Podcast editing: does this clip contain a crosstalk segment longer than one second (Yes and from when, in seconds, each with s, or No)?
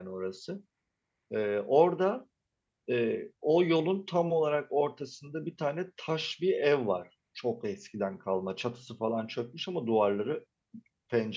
No